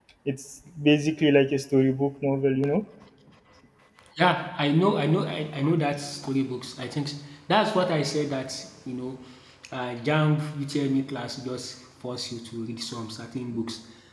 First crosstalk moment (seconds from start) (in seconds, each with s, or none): none